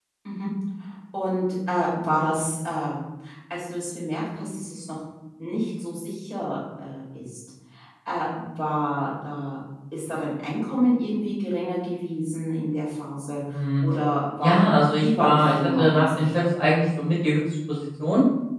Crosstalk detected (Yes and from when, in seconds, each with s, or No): Yes, from 14.4 s